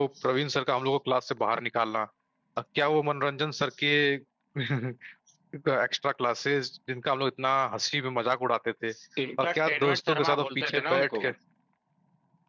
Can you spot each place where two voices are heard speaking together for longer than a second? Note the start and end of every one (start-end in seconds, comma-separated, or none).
9.4-11.2